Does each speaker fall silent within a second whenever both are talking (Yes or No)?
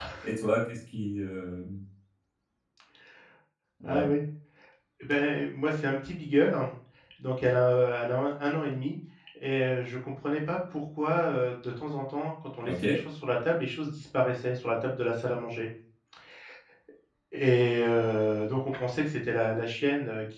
Yes